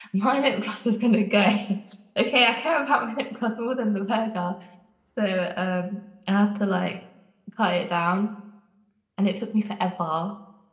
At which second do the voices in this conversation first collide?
none

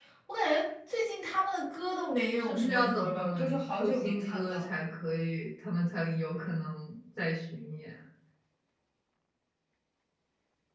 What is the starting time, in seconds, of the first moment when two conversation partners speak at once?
2 s

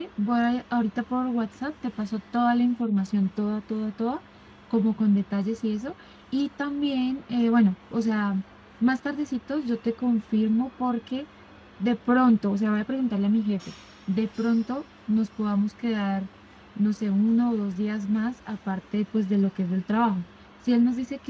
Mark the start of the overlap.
none

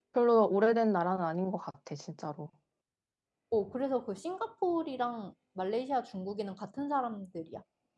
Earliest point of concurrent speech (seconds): none

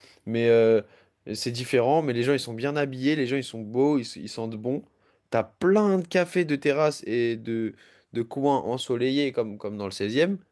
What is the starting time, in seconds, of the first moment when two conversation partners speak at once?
none

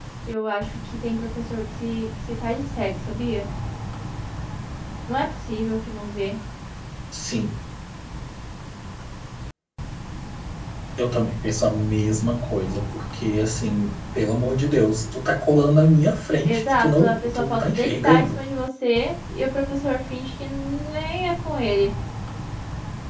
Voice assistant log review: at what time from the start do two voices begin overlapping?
16 s

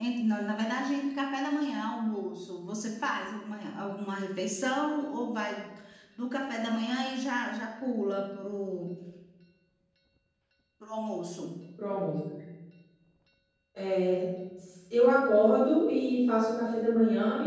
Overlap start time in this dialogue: none

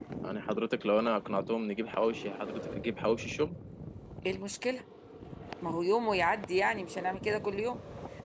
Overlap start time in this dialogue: none

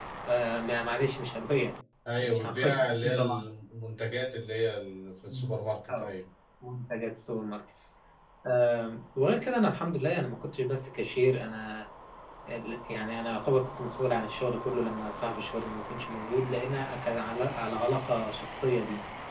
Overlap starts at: 2 s

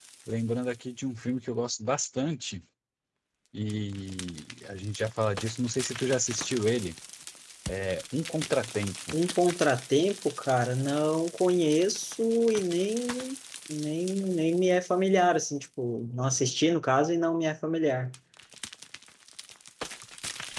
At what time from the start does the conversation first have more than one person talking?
none

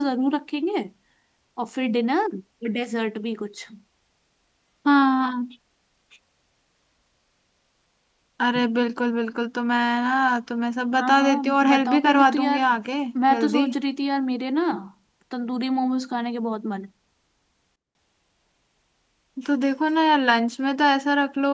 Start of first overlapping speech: 11 s

